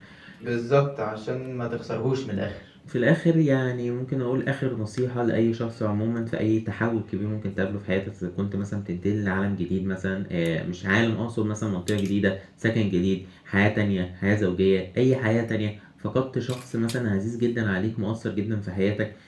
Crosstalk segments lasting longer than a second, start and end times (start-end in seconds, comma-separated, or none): none